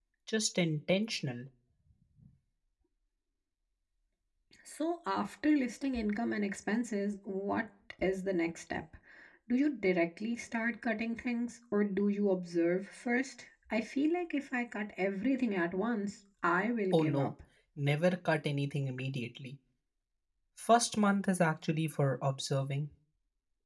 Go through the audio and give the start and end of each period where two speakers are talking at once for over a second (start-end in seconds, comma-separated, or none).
none